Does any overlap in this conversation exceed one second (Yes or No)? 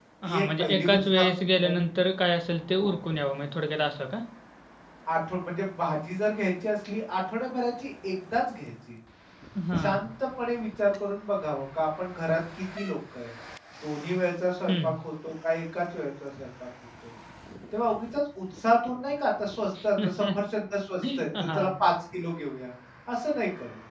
Yes